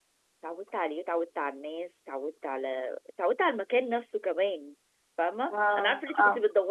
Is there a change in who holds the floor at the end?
No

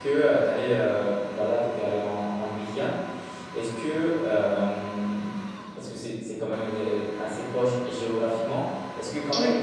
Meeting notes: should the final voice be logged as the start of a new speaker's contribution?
No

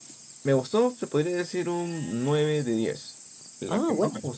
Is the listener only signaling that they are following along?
Yes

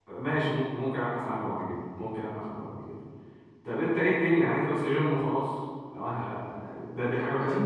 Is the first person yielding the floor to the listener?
Yes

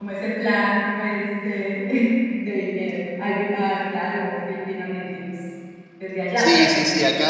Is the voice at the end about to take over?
Yes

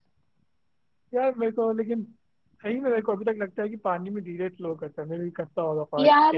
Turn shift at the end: Yes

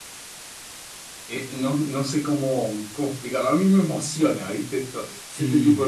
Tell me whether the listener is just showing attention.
No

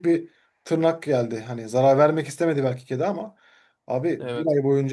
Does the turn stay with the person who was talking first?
Yes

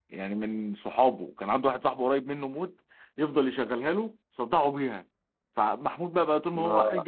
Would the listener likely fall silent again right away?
Yes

